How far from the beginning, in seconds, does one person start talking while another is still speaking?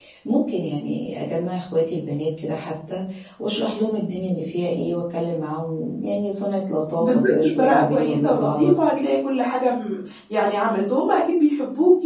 7.0 s

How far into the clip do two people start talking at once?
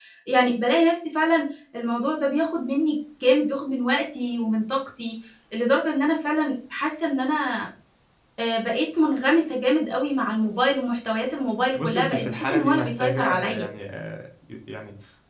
11.7 s

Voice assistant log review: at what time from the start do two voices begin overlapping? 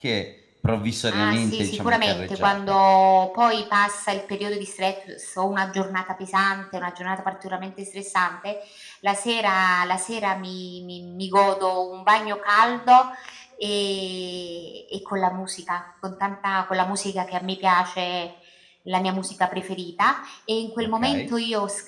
1.1 s

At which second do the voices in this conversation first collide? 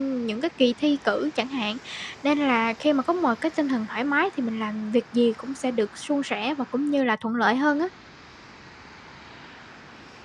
none

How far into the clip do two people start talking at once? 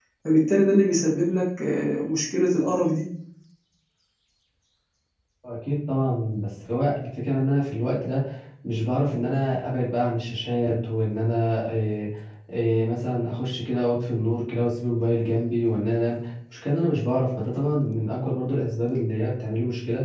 none

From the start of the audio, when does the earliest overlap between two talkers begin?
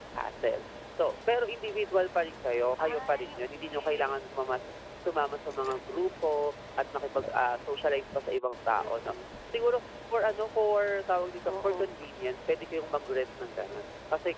2.8 s

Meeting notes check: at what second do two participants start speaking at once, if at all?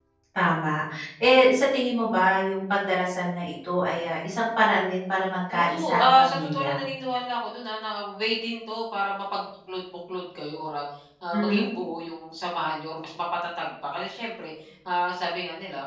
5.5 s

